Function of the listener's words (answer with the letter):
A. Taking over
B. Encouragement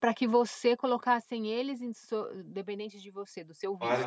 A